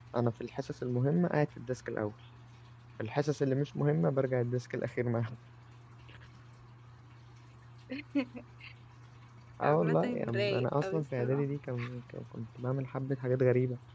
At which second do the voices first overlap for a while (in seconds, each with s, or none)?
9.6 s